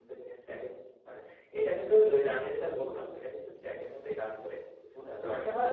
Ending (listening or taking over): taking over